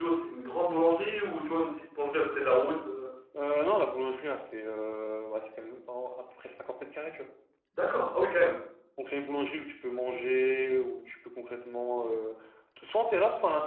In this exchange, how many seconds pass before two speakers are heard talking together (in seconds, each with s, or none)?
none